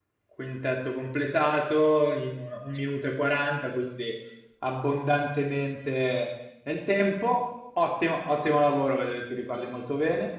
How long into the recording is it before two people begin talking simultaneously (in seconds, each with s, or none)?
none